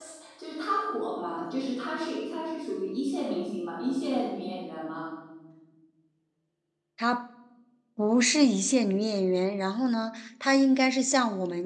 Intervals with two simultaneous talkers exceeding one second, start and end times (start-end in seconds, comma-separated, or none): none